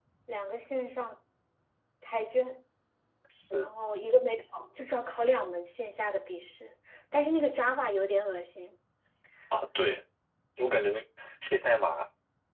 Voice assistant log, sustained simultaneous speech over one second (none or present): none